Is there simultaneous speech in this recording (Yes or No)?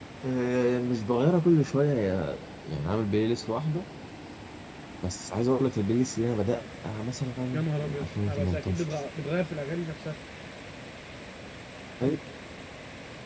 Yes